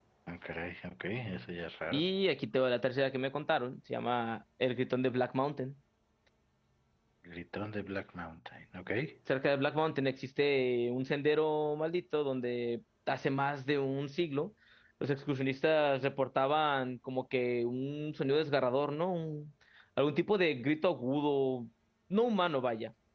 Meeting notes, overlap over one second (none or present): none